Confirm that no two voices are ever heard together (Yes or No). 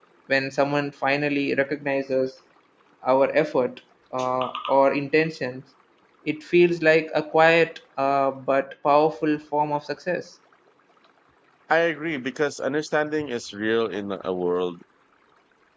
Yes